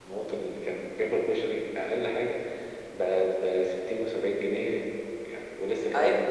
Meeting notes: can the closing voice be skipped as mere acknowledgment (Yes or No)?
No